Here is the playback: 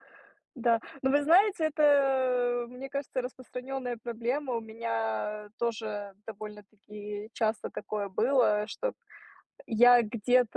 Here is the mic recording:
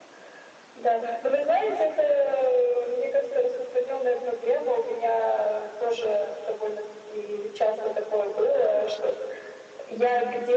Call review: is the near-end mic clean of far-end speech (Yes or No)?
No